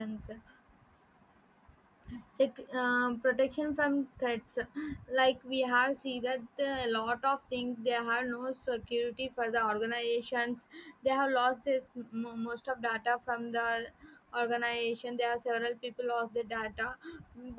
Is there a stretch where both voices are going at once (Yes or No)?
No